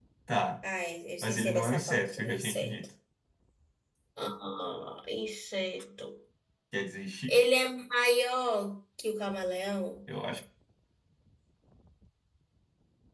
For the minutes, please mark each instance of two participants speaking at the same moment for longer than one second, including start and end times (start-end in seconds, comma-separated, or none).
1.2-2.7